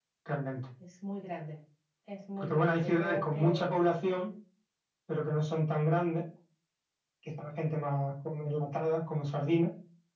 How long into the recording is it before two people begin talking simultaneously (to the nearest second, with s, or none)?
2 s